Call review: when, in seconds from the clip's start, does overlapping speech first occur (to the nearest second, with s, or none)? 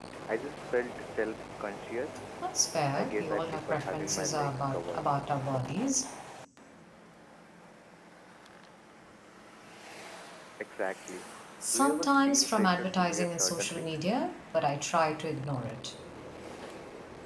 3 s